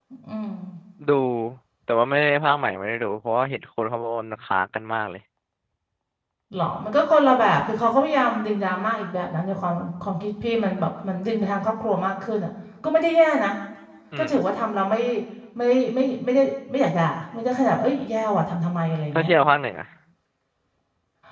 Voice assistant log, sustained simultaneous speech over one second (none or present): none